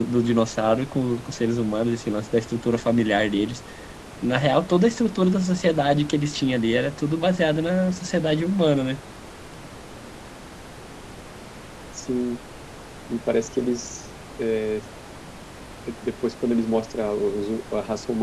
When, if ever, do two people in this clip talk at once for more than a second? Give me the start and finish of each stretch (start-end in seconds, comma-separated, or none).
none